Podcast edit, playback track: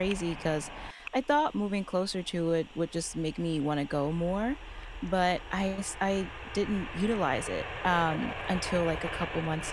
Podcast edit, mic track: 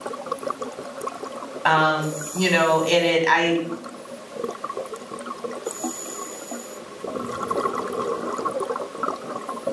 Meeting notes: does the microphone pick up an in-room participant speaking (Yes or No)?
Yes